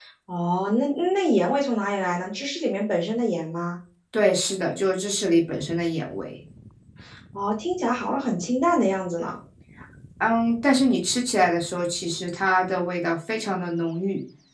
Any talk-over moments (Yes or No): No